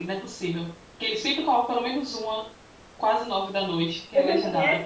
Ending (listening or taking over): taking over